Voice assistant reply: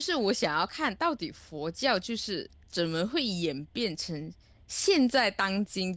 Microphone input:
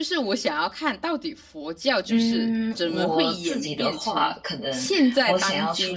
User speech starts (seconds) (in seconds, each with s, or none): 2.1 s